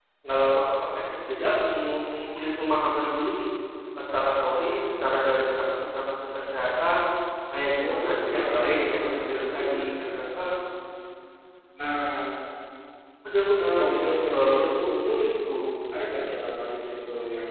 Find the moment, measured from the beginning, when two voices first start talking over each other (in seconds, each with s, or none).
7.8 s